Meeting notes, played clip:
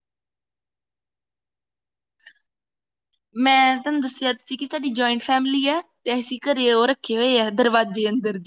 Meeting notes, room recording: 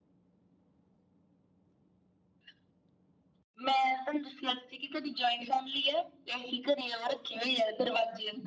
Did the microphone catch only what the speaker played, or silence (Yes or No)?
Yes